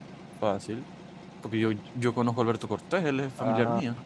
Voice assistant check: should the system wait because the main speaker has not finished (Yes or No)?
No